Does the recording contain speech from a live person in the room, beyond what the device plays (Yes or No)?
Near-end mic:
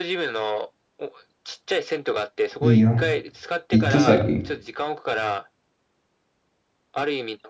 Yes